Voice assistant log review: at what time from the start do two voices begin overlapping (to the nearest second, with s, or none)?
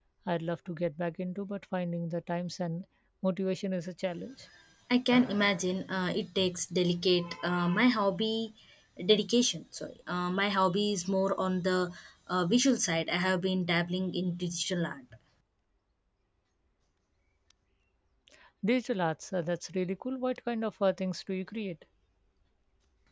none